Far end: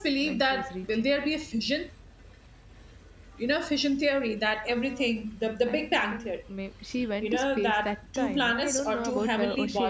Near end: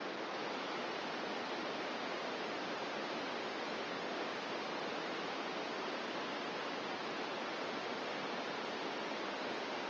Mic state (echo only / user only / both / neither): neither